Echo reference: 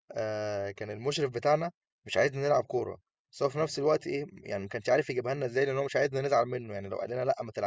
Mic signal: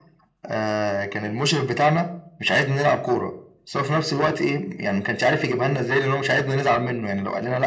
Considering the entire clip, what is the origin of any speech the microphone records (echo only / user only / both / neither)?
echo only